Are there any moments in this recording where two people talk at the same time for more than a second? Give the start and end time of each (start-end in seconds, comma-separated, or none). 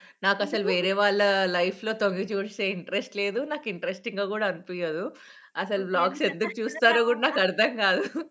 5.8-7.3